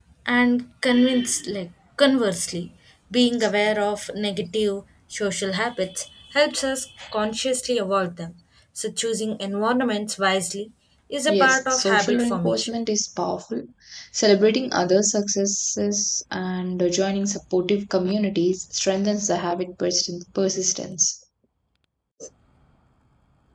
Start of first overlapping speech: 11.3 s

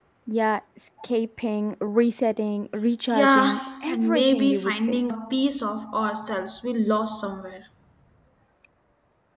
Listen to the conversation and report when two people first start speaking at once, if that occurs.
3.1 s

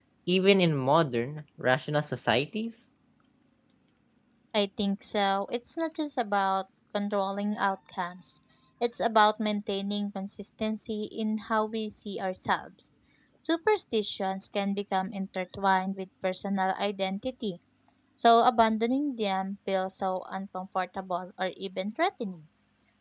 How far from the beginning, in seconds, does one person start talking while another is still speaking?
none

